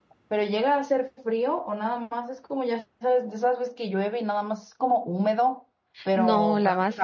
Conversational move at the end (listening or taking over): taking over